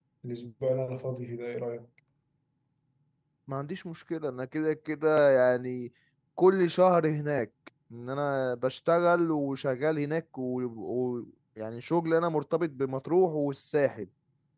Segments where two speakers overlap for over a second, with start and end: none

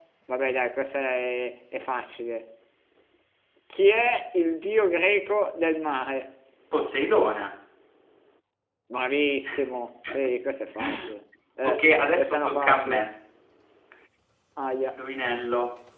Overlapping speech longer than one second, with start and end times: 11.6-13.1

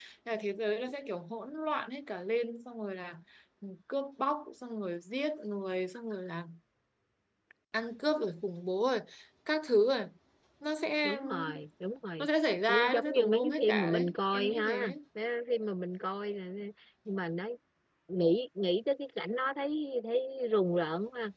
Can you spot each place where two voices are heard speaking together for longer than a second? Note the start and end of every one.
12.7-14.9

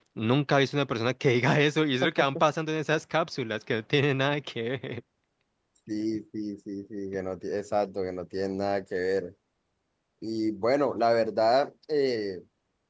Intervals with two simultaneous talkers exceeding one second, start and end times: none

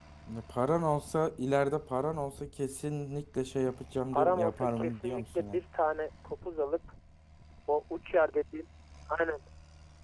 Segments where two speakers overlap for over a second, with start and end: 4.1-5.6

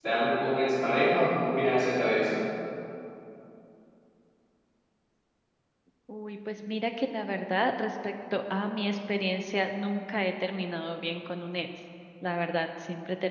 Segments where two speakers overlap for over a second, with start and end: none

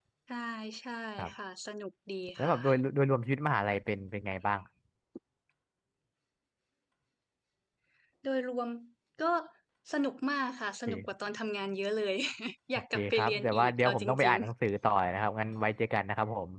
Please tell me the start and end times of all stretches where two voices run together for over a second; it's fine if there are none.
12.9-14.4

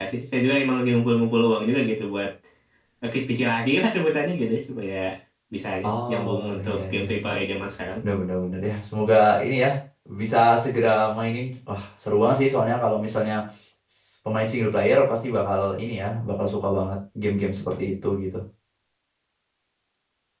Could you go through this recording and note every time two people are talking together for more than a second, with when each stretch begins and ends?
6.1-7.3

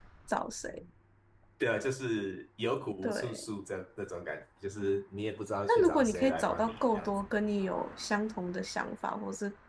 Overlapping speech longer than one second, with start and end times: 5.7-7.1

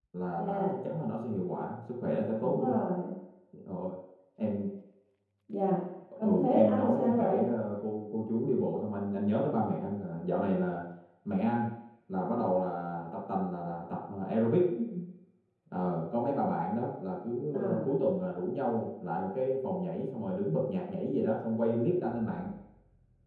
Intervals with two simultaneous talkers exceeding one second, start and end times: 6.2-7.5

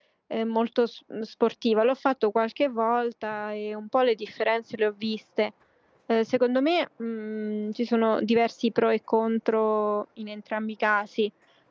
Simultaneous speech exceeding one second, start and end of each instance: none

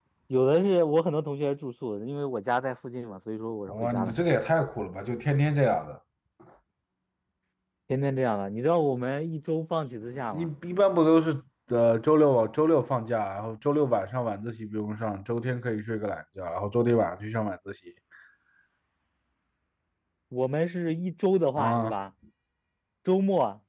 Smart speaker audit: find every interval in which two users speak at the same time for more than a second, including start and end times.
none

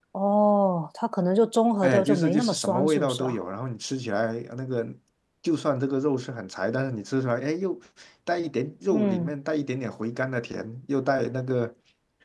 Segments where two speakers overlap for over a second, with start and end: 1.8-3.4

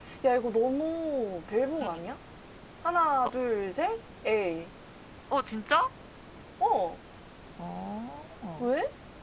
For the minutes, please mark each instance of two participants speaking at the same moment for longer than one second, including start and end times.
none

